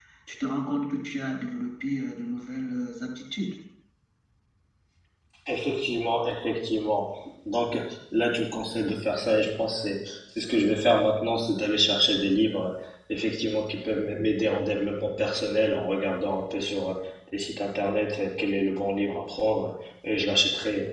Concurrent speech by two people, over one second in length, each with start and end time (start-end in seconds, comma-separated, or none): none